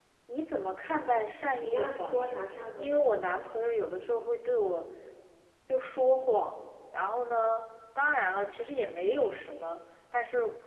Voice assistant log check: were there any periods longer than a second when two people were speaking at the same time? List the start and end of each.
1.6-2.9

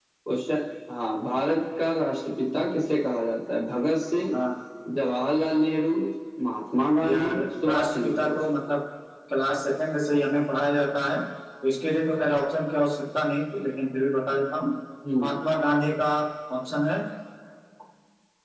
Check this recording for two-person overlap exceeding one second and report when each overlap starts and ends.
7.0-8.4

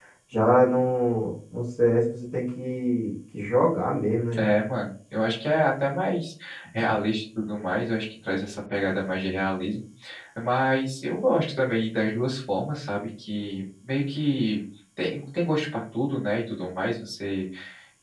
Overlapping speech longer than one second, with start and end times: none

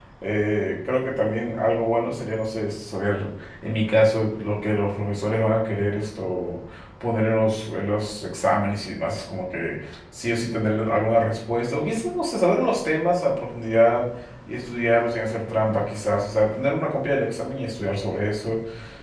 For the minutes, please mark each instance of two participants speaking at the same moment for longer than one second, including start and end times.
none

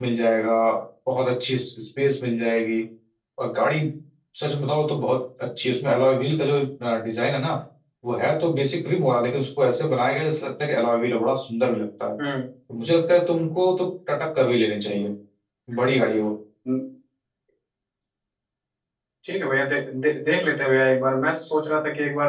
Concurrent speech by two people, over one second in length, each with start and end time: none

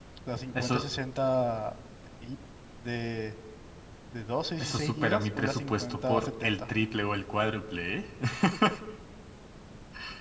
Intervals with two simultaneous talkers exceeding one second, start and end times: 4.6-6.6

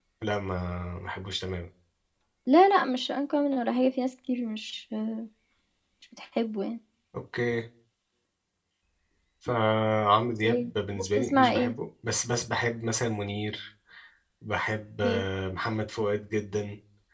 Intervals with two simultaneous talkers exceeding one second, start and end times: 10.4-11.7

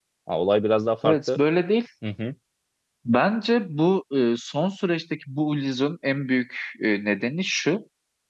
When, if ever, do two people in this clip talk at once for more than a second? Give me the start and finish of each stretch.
none

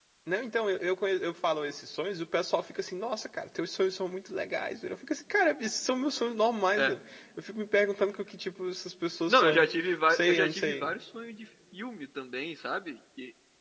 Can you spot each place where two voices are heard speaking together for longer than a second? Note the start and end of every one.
9.3-10.9

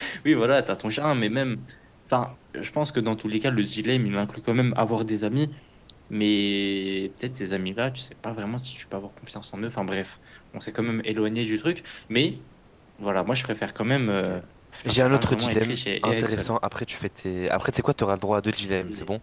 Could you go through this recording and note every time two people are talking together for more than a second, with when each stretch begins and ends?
14.8-16.5

